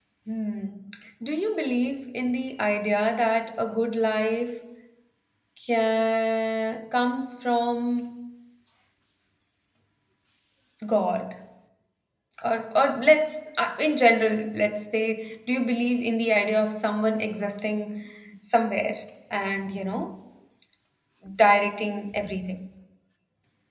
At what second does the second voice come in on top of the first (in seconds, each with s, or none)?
none